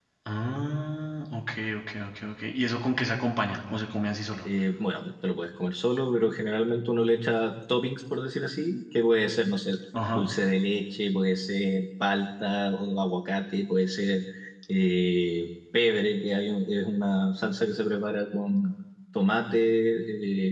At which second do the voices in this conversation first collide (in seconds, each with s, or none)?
none